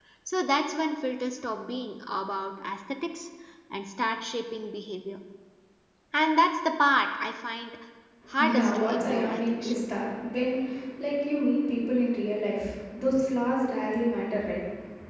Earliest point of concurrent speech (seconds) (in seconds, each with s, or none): 8.4 s